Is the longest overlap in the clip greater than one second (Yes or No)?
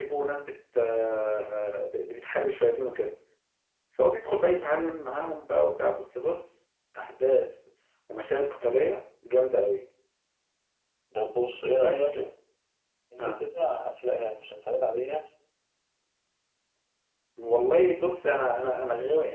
No